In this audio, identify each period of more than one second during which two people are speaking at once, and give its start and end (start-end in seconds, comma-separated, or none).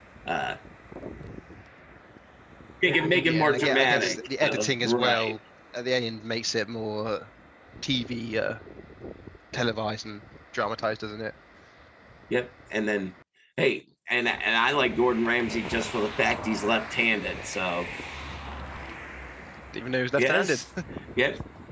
3.2-5.4